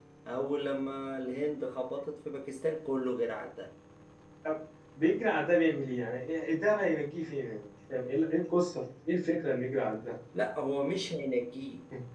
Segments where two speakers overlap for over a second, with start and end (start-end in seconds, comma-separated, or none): none